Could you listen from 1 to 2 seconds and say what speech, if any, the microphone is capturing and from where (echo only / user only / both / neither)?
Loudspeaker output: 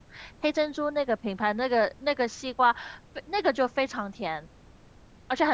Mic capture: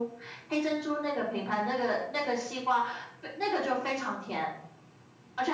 echo only